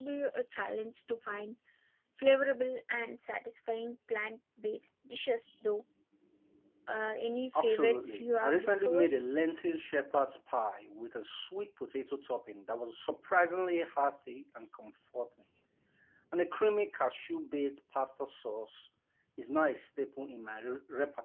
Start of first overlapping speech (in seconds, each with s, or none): 7.6 s